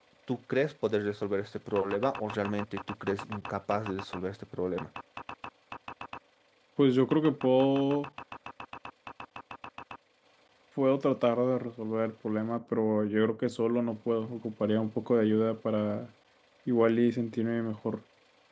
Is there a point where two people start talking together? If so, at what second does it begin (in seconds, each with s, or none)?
none